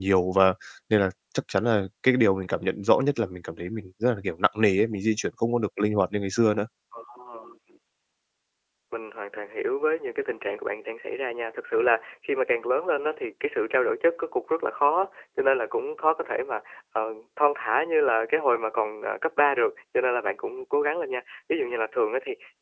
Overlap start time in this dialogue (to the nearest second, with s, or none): none